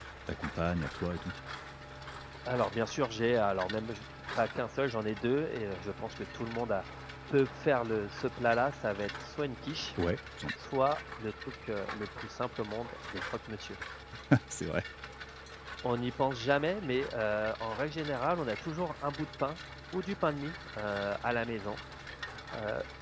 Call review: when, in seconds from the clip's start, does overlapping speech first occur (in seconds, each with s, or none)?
none